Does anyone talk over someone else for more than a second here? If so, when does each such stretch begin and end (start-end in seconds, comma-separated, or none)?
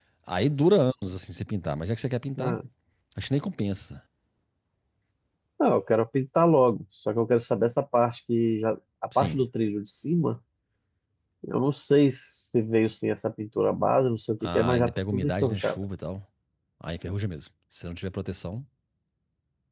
14.4-15.8